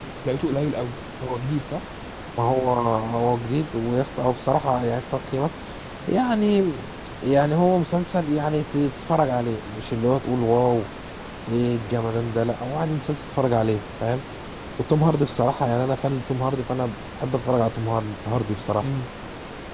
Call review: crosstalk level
none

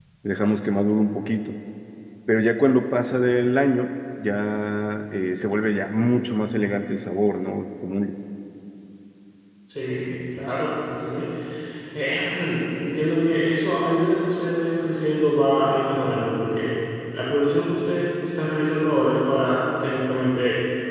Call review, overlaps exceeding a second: none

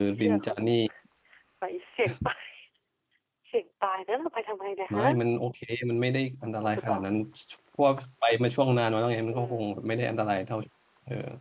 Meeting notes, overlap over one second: none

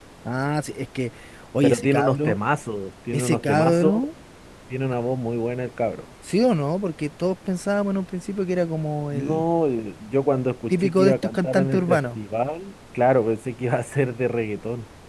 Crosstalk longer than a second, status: present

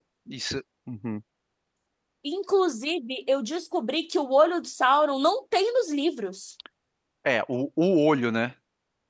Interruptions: none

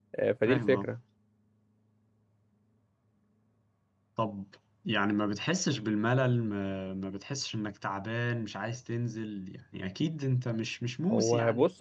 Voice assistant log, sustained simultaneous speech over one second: none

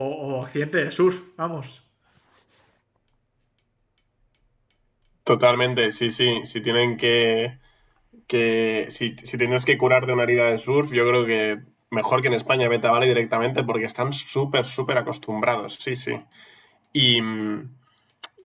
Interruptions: none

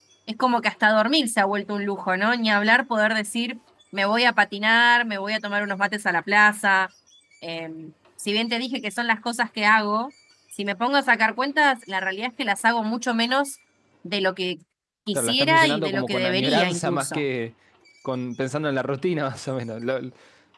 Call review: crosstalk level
present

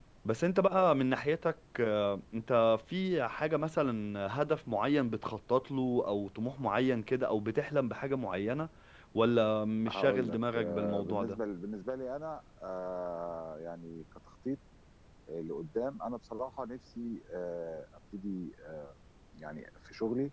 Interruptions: present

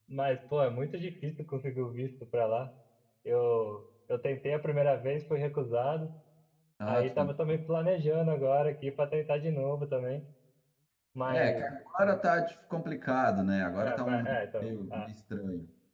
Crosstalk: present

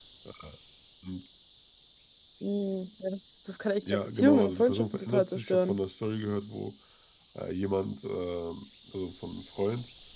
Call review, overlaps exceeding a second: present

